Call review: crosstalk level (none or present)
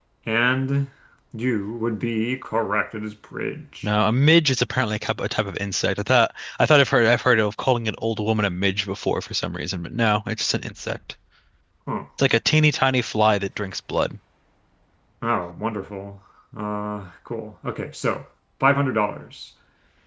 none